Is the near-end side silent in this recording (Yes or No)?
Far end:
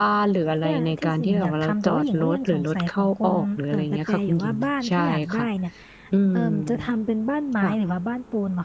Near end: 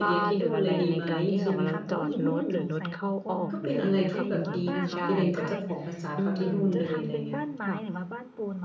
No